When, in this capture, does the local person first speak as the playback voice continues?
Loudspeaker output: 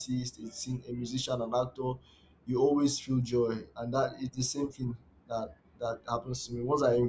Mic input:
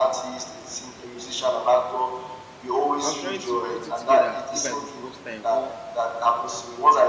3.0 s

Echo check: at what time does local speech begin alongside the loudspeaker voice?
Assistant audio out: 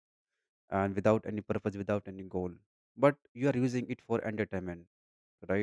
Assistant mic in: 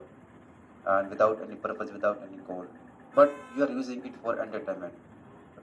none

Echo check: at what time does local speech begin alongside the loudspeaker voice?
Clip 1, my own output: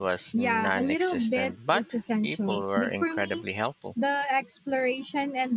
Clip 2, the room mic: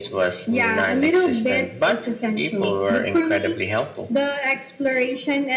none

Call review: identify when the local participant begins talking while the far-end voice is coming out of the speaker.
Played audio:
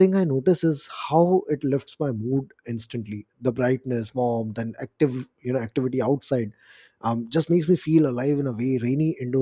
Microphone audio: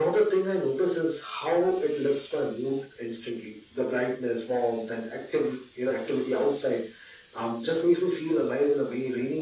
none

